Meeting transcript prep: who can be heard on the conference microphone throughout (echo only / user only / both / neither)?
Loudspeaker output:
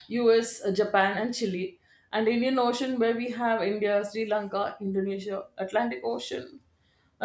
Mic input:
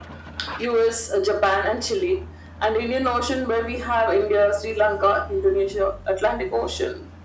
echo only